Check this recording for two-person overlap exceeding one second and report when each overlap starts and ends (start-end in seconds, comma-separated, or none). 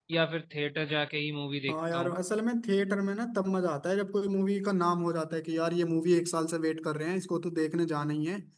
none